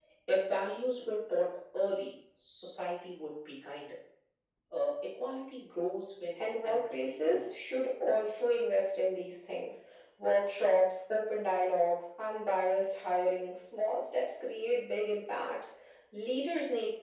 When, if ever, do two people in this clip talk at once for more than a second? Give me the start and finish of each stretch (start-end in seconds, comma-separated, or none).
6.4-7.6